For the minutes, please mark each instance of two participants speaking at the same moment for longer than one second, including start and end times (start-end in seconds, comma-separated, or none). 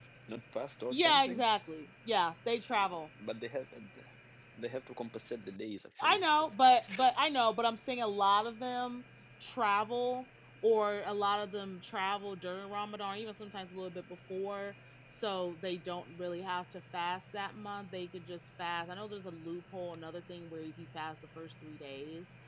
none